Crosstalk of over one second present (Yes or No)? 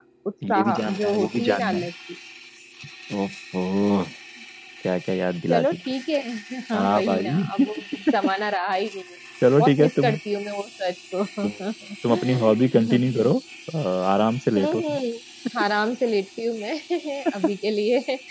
Yes